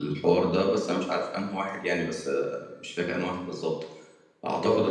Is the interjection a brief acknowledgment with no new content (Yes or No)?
Yes